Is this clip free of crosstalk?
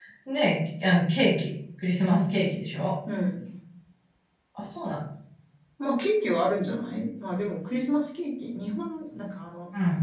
Yes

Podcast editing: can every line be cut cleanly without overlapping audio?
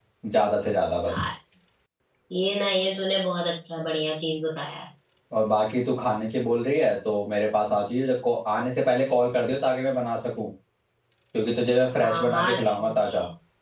No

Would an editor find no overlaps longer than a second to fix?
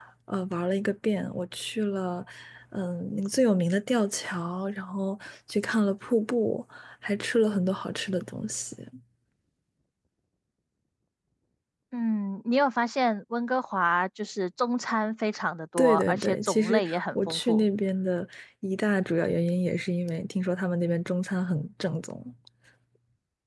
No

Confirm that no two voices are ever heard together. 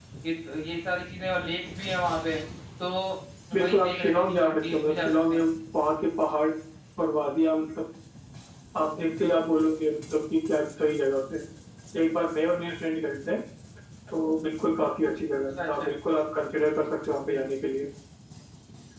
No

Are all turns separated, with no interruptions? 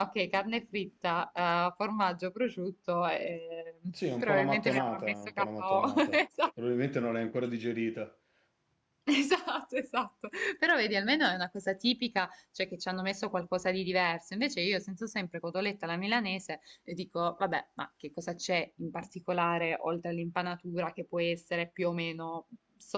No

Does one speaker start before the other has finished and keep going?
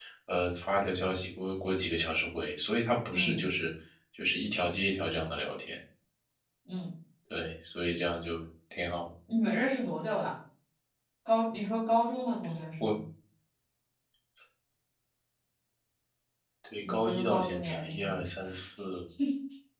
Yes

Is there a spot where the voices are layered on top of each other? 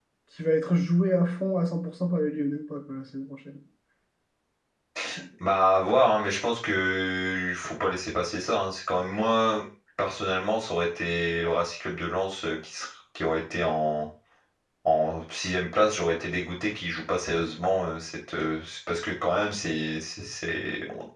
No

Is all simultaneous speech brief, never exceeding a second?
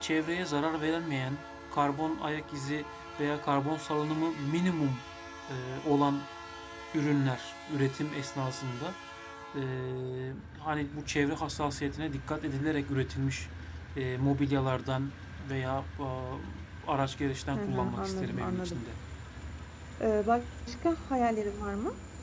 No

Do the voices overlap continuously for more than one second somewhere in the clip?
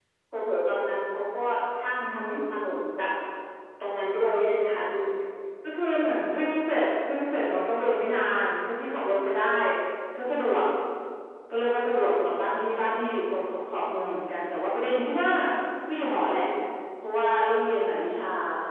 No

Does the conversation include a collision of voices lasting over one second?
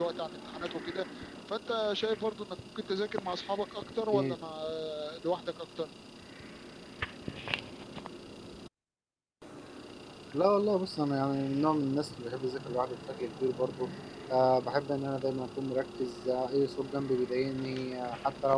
No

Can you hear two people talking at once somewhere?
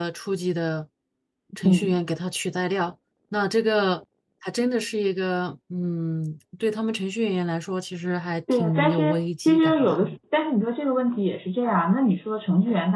Yes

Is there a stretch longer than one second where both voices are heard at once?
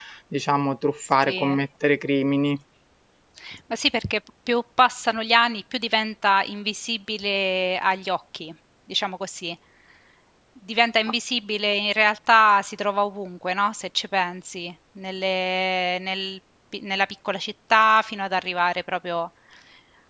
No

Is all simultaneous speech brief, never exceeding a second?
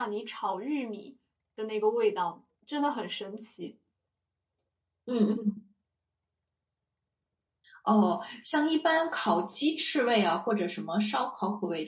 Yes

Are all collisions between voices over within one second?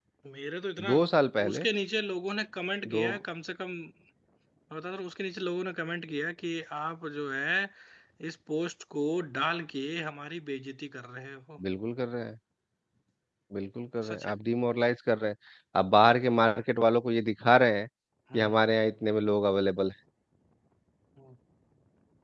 Yes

